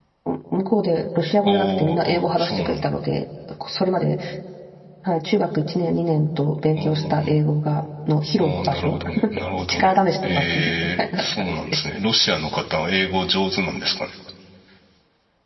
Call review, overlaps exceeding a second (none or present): present